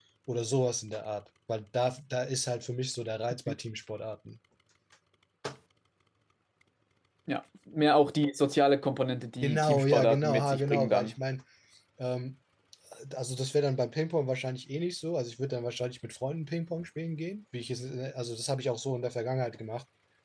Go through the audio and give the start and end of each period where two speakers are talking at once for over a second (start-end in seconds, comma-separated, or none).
9.4-11.1